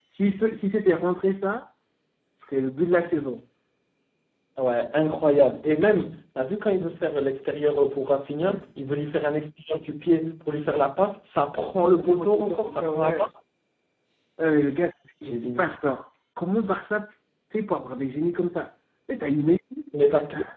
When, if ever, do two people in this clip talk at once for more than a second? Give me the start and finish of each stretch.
12.0-13.3

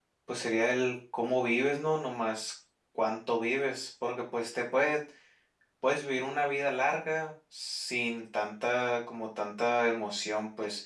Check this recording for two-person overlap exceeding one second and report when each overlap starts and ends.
none

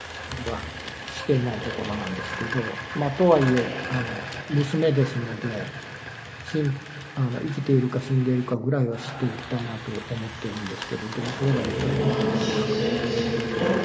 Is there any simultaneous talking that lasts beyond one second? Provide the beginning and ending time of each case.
11.1-12.6

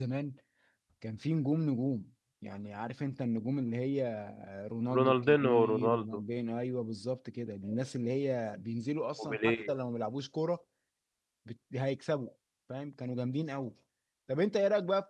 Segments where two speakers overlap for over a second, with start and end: 4.9-6.2

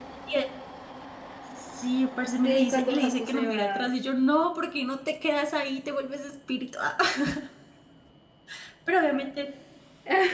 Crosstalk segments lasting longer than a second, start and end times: 2.4-3.9

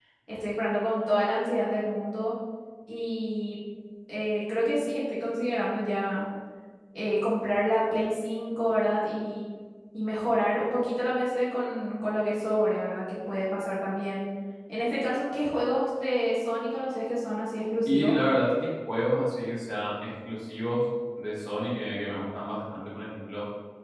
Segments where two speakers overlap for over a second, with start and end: none

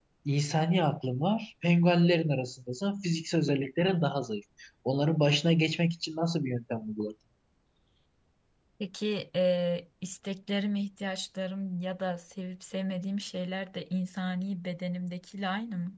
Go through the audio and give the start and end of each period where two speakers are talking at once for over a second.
none

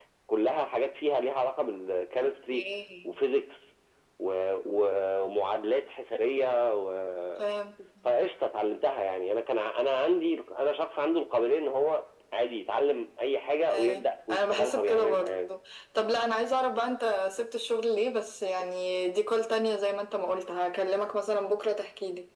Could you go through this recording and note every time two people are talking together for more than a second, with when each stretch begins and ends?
13.7-15.4

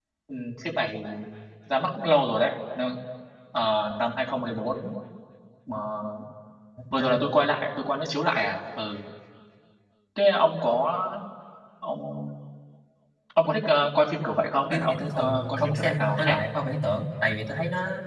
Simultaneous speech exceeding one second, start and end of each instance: 14.7-16.4

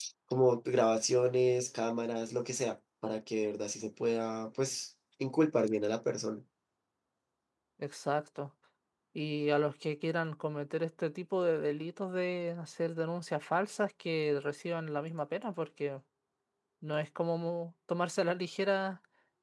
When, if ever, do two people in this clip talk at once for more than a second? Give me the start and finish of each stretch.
none

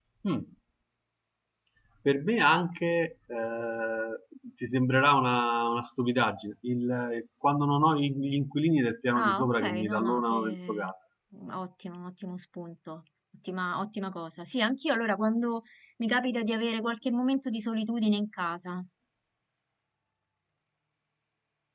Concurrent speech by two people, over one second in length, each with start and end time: 9.2-10.9

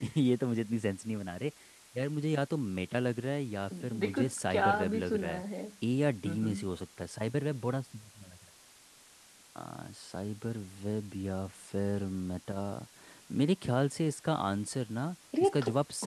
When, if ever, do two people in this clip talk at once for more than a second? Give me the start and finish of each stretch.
4.0-5.4

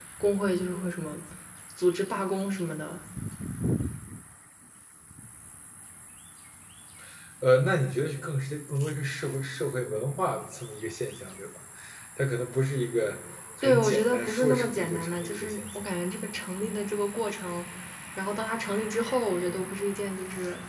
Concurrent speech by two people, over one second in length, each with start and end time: 13.6-15.6

